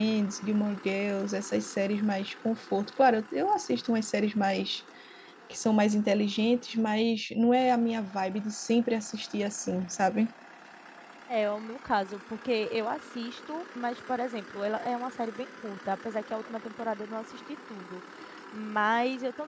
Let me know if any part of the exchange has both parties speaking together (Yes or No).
No